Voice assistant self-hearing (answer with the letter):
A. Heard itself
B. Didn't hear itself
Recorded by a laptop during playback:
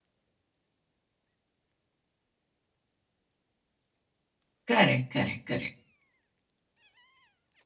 B